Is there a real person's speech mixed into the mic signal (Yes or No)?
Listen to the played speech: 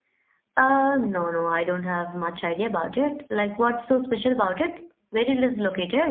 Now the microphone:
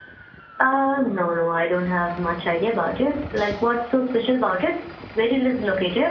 No